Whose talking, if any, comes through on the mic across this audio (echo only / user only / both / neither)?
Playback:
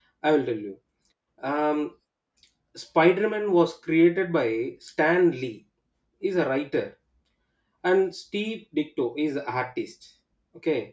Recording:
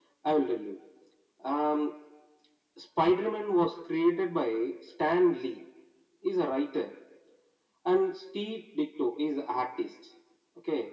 echo only